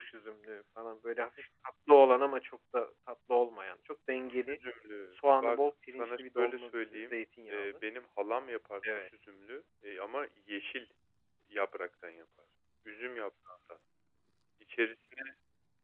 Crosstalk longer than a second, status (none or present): present